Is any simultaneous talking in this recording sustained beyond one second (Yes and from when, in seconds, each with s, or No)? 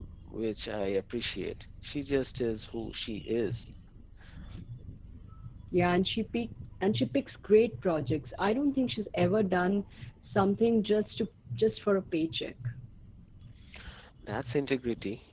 No